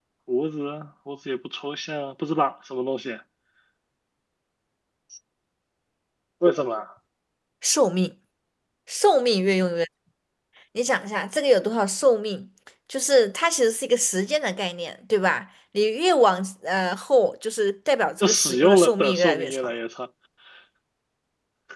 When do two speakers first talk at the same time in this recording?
18 s

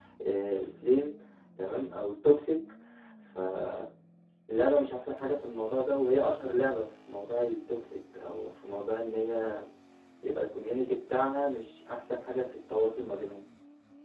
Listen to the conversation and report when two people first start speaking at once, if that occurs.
none

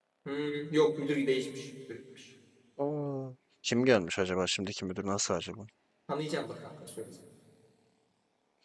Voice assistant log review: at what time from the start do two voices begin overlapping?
none

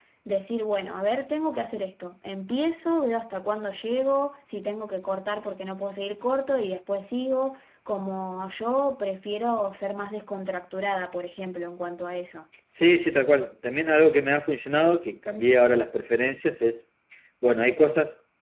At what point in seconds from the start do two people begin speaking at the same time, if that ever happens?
none

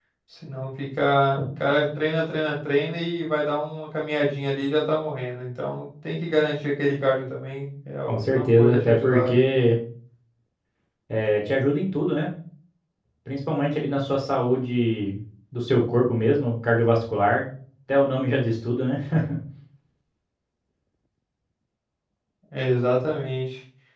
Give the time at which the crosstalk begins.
8 s

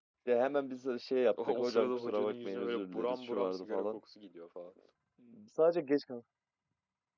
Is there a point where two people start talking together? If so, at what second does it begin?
1 s

